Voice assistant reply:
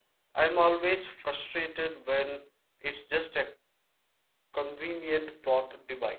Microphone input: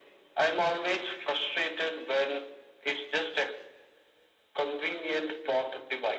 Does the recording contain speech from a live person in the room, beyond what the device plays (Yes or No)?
No